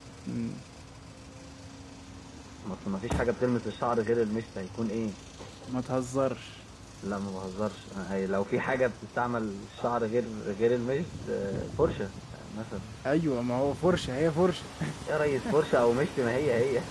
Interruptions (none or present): none